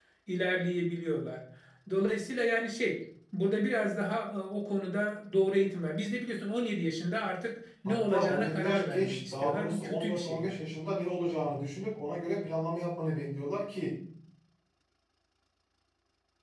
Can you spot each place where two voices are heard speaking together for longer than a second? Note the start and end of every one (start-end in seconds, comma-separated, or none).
7.8-10.6